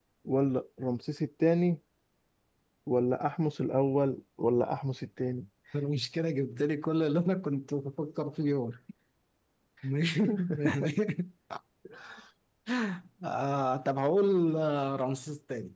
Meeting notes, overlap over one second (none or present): none